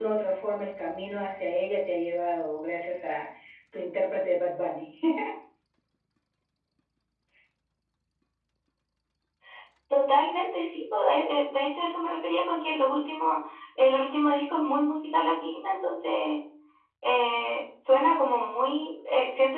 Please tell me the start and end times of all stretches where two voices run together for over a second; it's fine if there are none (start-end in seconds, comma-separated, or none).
none